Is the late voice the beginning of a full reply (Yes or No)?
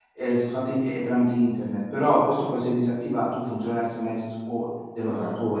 Yes